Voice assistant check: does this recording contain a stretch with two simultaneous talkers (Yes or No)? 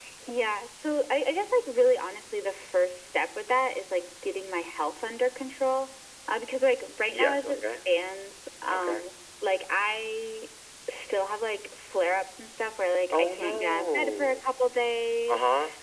Yes